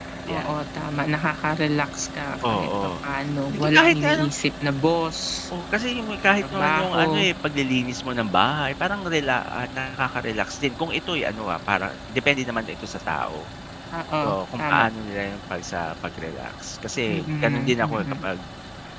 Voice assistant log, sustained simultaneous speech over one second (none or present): present